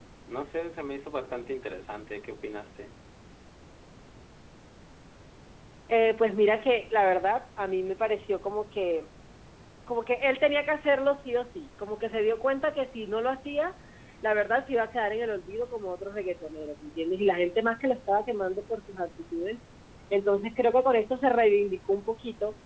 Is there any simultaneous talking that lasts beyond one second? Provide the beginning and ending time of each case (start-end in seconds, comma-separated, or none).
none